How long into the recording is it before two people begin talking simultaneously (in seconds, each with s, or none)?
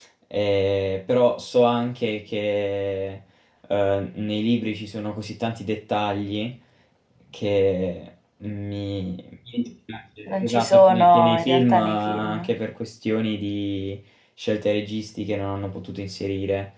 10.3 s